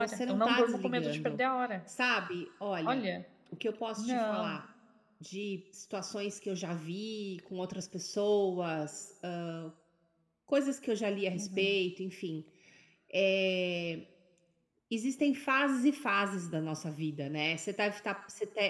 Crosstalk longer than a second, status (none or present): present